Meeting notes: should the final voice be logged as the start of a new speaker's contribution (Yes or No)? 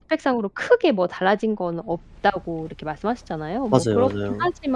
No